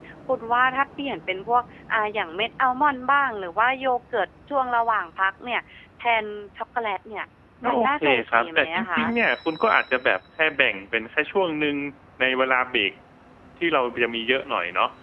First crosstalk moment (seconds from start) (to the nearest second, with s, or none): 8 s